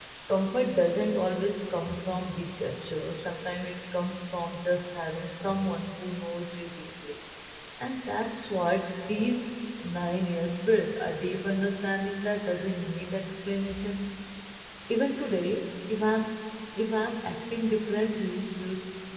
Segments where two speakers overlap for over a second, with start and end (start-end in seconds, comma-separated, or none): none